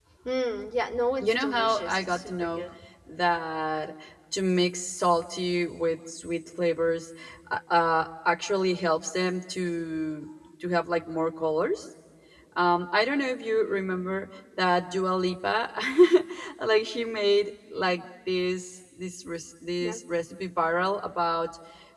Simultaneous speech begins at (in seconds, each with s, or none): 1.2 s